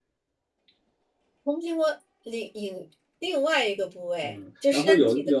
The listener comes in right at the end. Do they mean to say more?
Yes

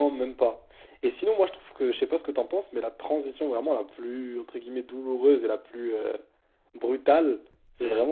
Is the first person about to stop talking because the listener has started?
No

